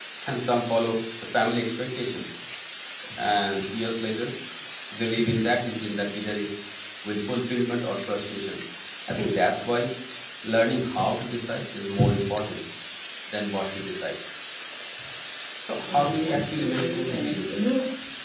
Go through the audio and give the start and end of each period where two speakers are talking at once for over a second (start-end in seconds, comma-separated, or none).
15.9-17.6